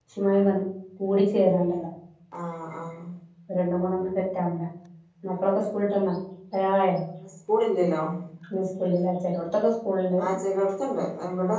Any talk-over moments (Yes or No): No